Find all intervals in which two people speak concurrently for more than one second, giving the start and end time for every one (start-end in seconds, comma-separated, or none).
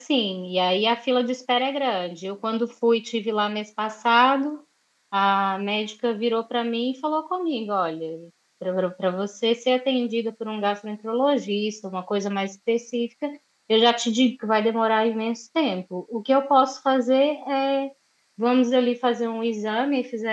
none